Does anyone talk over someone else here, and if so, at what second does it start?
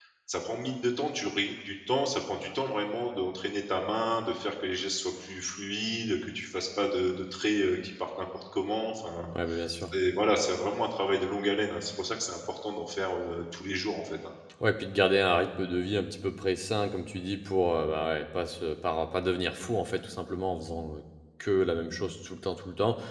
none

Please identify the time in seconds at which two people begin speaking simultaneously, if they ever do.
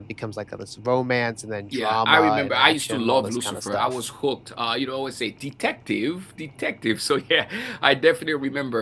1.7 s

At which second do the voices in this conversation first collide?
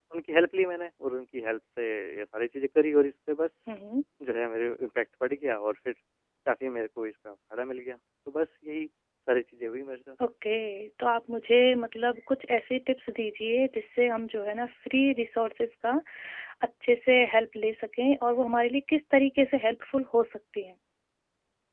none

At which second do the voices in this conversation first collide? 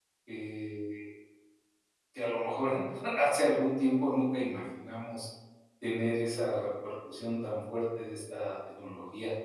none

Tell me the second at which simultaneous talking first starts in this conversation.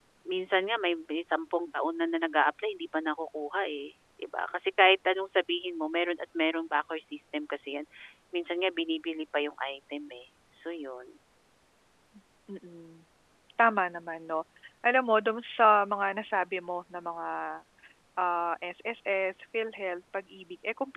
none

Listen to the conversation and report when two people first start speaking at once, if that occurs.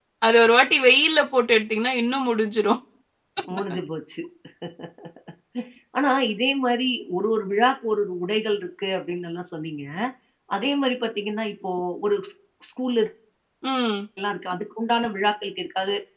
none

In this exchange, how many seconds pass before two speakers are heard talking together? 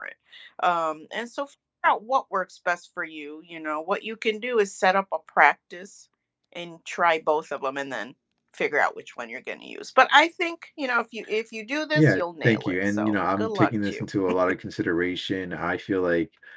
11.9 s

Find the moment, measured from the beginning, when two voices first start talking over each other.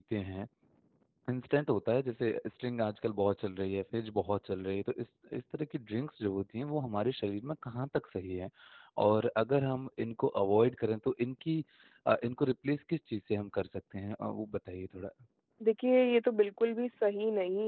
none

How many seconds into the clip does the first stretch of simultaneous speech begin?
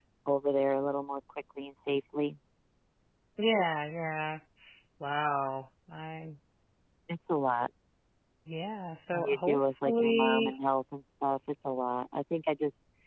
9.1 s

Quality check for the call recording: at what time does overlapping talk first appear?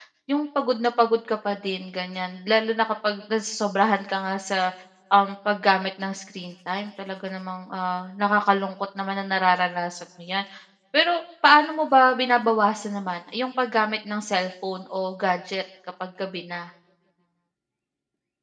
none

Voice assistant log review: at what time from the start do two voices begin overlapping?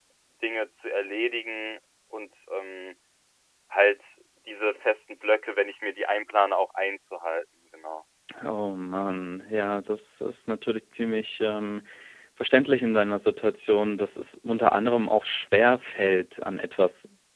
none

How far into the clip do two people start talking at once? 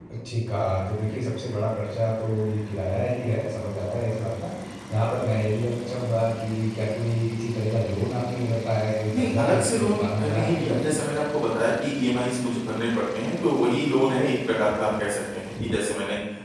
9.1 s

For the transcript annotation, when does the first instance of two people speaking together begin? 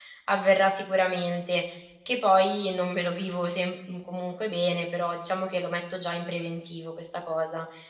none

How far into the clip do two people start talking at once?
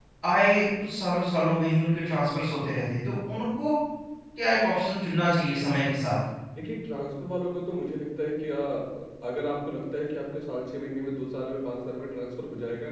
none

